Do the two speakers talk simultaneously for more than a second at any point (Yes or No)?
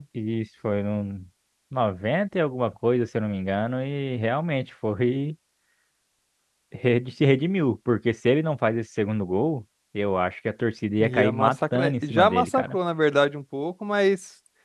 Yes